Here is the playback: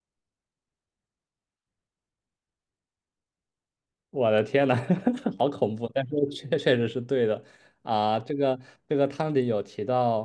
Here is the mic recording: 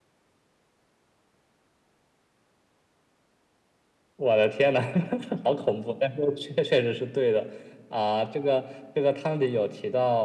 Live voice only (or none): none